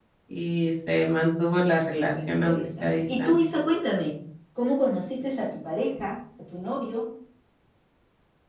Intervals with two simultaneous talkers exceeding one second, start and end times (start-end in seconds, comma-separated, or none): 2.0-3.4